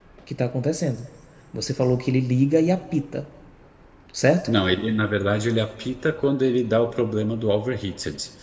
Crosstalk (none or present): none